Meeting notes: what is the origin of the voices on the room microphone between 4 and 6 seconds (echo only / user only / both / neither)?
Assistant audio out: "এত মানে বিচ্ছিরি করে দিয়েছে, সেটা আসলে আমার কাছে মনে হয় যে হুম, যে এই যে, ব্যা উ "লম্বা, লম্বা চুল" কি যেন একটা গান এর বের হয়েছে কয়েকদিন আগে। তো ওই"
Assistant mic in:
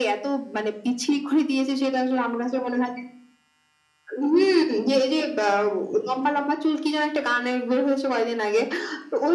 echo only